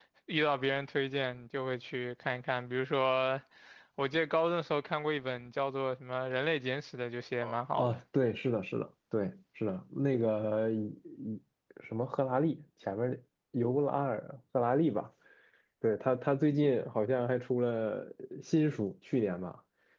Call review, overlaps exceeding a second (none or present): none